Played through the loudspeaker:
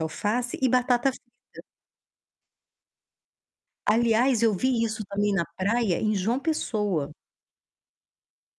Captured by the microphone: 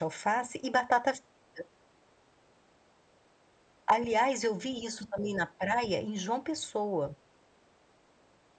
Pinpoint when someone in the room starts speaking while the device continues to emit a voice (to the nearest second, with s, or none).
none